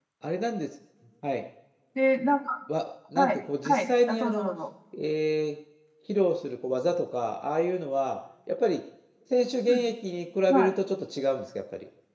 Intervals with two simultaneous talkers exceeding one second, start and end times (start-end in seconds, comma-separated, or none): 3.1-4.5